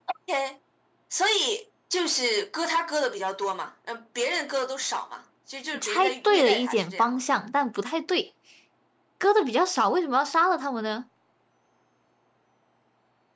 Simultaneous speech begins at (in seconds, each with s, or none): 5.7 s